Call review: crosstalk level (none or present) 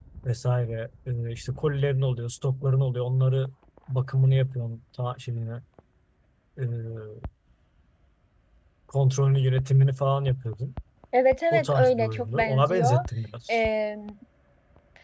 present